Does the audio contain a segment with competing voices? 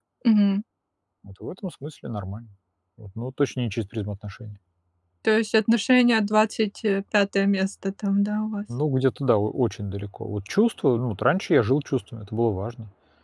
No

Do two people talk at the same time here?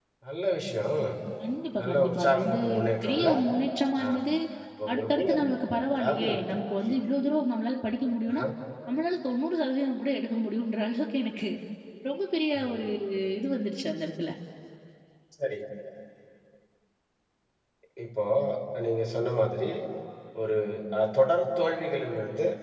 Yes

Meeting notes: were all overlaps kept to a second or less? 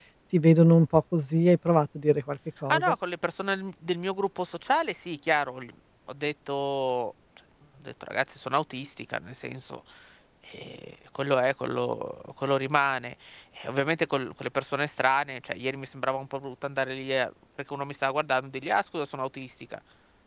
Yes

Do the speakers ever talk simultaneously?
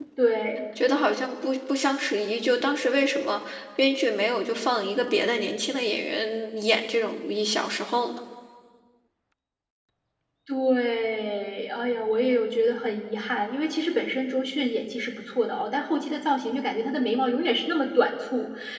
No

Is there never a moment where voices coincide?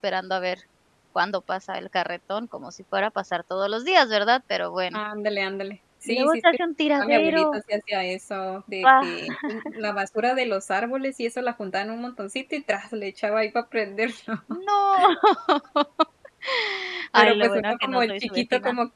No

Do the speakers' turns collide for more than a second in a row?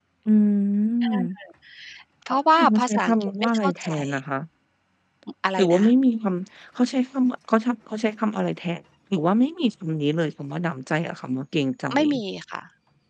Yes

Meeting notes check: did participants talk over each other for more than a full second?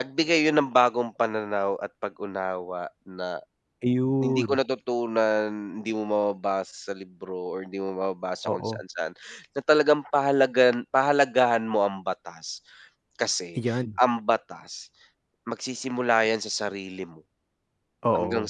No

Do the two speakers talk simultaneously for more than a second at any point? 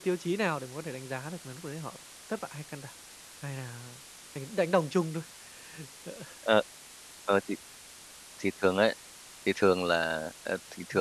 No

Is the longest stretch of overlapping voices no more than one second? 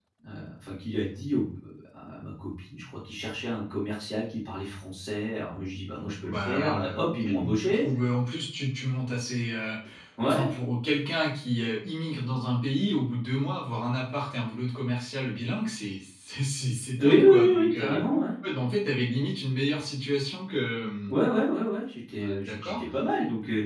No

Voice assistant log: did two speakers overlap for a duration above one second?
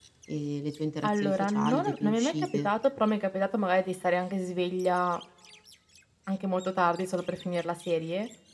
Yes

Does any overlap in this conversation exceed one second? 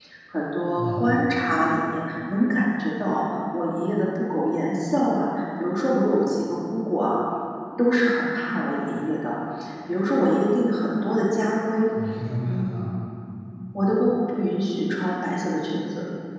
No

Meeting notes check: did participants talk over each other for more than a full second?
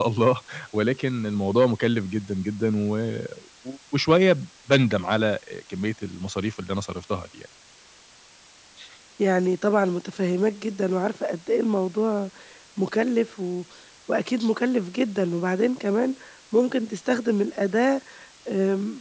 No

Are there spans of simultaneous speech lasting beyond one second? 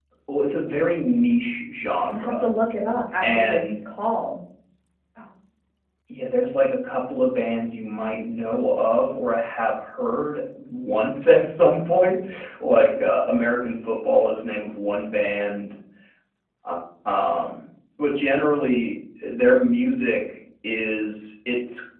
No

